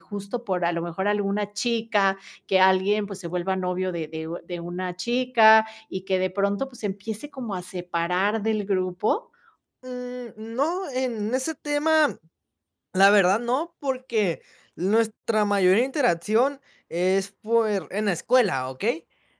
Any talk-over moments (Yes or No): No